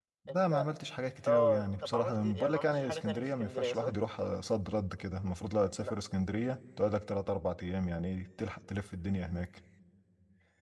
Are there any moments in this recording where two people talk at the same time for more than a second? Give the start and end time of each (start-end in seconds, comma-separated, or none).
1.3-3.9